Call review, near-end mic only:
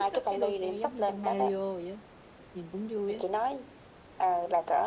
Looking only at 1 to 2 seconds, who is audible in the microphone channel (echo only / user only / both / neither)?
both